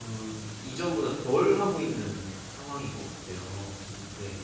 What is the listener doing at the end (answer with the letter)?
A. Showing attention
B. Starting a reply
B